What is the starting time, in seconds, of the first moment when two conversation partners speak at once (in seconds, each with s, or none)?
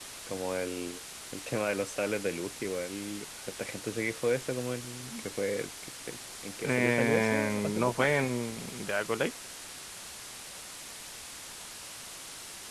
6.6 s